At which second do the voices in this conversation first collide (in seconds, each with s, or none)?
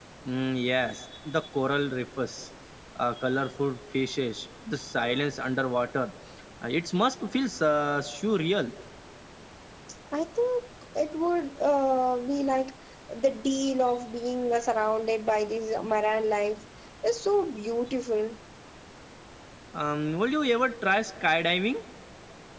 none